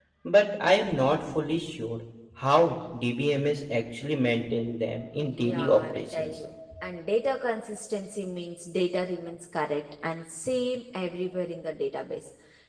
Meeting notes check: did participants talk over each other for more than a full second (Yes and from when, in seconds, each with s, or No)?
Yes, from 5.2 s